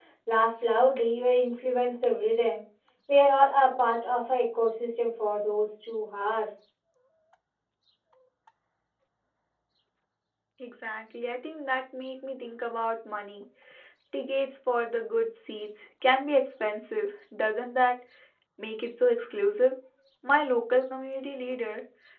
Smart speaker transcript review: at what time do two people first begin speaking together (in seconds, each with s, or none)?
none